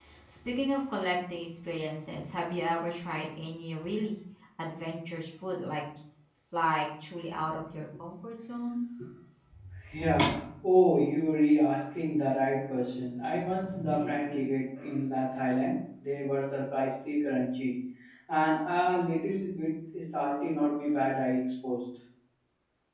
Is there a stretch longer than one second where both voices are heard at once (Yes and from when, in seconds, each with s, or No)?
No